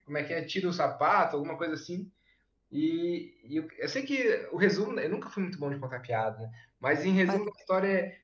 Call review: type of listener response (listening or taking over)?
listening